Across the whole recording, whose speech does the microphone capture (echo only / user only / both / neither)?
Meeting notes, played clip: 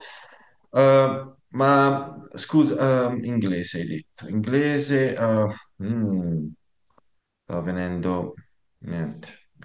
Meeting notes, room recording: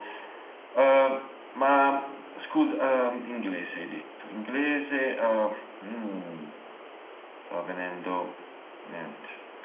echo only